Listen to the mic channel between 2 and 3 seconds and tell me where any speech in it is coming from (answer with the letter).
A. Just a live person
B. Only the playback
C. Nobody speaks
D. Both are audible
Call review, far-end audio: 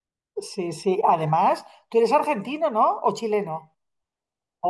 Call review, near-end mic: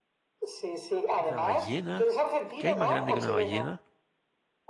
D